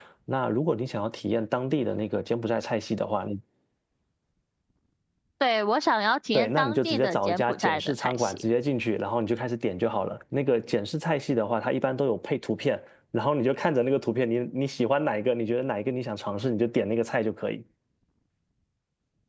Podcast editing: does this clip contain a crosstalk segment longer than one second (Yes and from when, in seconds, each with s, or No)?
Yes, from 6.3 s